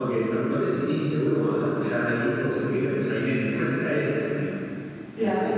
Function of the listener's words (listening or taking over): listening